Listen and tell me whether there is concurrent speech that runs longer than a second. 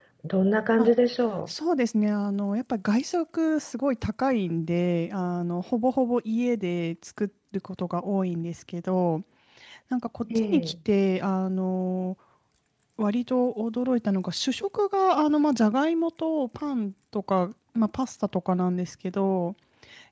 No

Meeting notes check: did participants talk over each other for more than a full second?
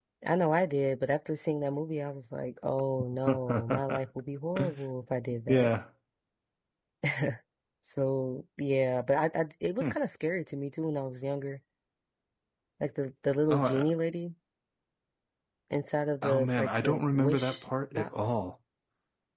Yes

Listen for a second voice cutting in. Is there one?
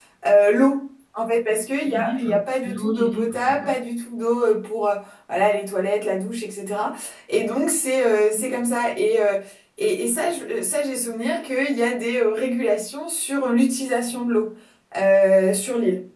Yes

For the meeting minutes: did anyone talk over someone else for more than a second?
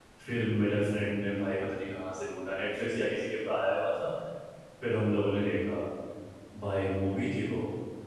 No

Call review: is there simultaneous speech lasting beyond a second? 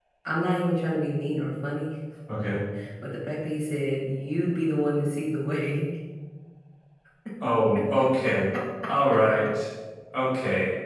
No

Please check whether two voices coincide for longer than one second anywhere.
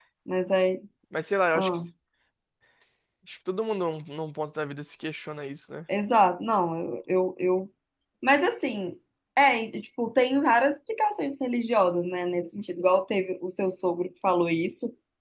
No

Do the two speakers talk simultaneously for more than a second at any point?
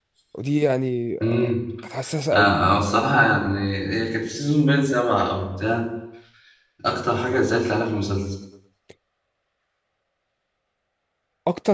No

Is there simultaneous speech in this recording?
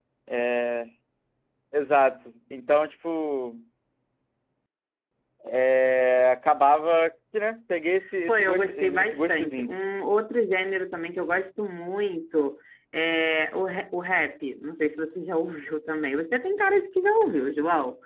Yes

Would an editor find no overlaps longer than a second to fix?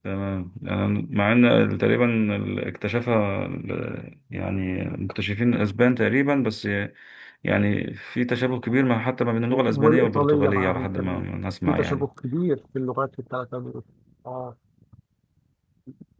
No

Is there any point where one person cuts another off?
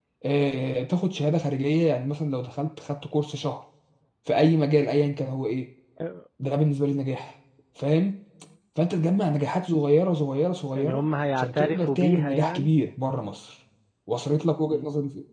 Yes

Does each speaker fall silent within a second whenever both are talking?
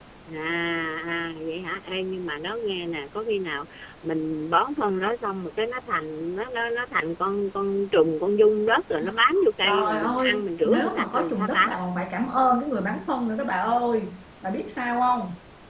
No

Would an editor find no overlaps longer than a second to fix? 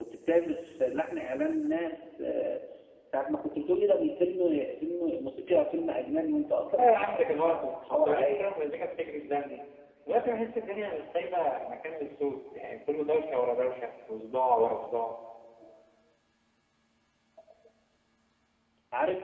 No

